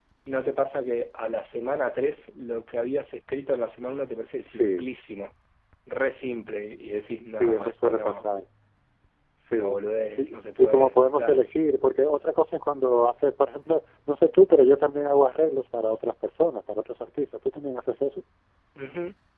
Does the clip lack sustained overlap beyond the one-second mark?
No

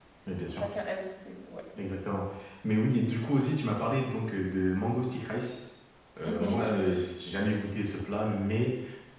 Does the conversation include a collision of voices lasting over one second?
No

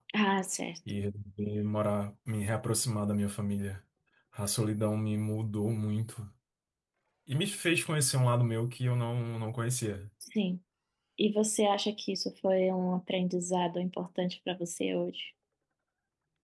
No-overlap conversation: Yes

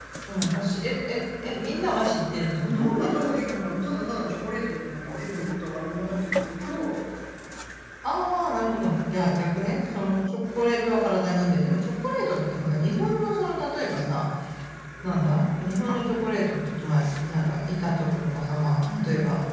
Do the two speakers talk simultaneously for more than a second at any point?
No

